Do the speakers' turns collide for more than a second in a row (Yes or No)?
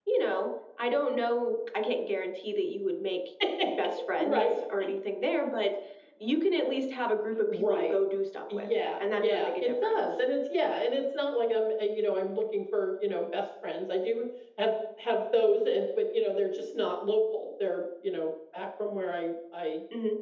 Yes